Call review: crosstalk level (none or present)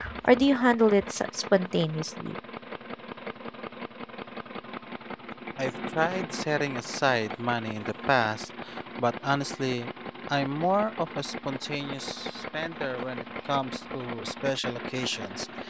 none